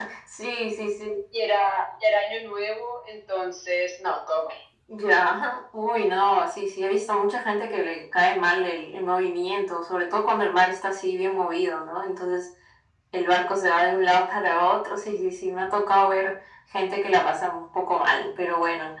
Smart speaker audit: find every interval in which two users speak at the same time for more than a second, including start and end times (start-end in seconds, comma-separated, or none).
none